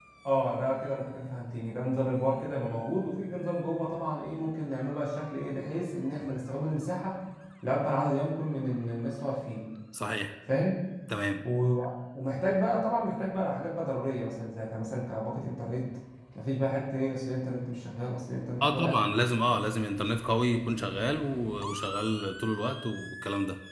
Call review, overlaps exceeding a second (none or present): none